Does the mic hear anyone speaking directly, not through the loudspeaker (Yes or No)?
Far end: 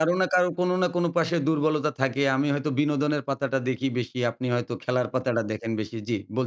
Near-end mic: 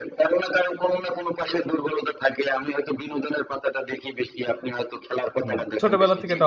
Yes